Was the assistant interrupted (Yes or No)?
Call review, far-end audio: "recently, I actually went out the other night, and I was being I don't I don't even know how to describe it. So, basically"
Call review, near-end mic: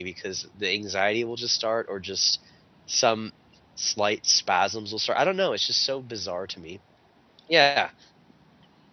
Yes